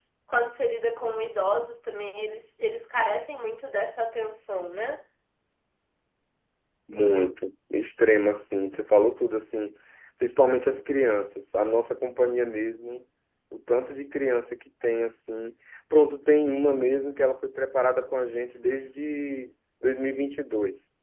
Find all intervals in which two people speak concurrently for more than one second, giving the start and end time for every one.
none

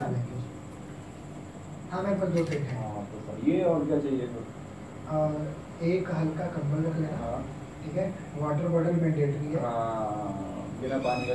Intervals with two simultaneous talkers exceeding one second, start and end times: none

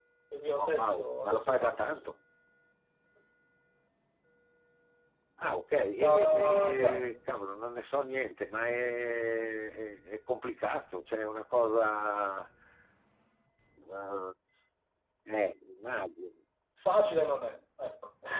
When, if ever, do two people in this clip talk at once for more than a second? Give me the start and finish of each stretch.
0.6-2.1, 5.9-7.3

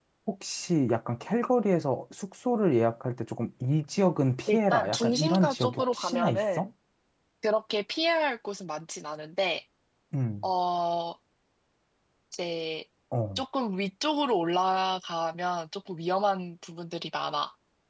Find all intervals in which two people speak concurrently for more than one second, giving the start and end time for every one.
4.5-6.7

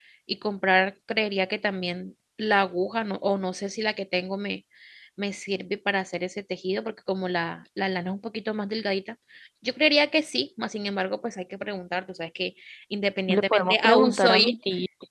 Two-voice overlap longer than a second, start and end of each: 13.3-14.5

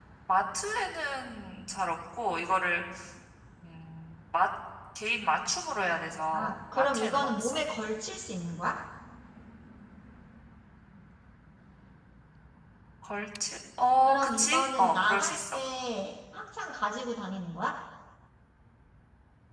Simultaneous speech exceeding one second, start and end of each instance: 6.3-7.6, 14.1-15.6

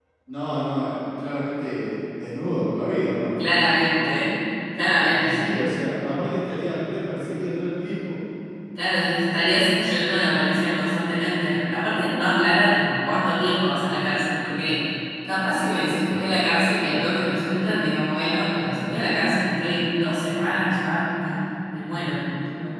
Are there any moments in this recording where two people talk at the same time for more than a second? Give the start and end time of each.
none

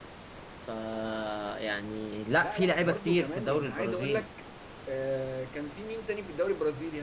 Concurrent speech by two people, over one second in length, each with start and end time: 2.4-4.2

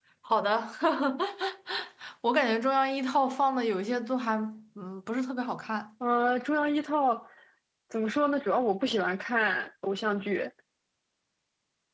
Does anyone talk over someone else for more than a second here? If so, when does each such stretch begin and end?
none

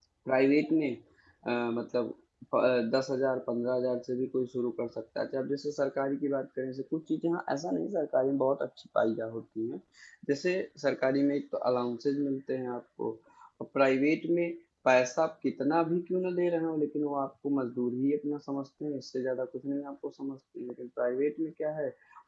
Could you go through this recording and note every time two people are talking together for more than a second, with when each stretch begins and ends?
none

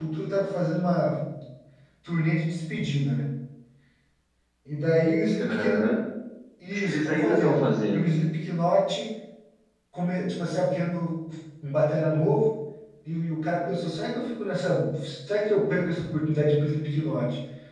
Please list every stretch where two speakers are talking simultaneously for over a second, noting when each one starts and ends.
6.7-8.2

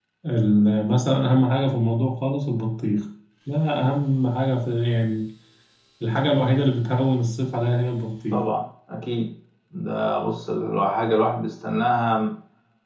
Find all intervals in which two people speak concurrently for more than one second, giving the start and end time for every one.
none

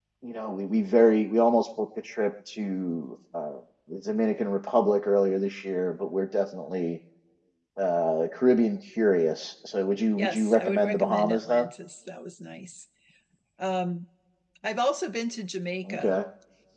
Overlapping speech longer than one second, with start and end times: 10.2-11.7

